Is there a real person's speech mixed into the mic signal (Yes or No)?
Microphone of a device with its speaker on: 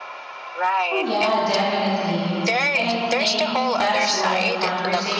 Yes